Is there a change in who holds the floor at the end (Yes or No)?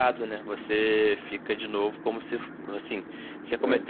No